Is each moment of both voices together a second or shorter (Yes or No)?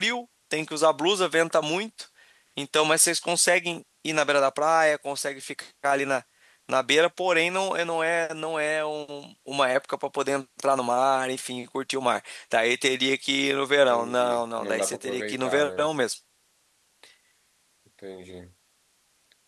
No